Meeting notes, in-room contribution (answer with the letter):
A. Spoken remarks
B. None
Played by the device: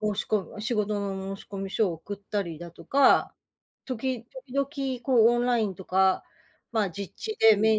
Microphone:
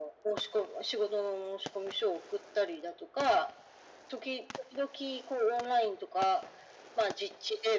B